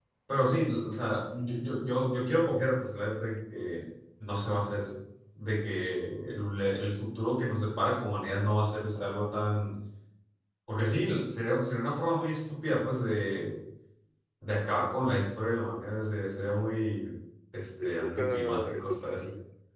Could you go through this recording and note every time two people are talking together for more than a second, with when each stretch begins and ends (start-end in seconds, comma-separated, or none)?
17.6-19.2